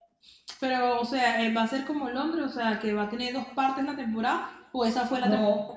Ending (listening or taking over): taking over